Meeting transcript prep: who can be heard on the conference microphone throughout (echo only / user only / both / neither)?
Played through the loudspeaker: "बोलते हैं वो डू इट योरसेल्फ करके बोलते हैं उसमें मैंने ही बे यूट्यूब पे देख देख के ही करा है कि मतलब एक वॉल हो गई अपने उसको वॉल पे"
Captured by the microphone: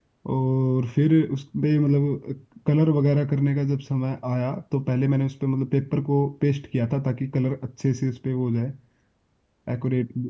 user only